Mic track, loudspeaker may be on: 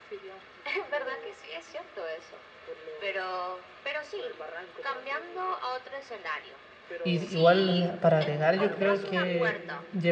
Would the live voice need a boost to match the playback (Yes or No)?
No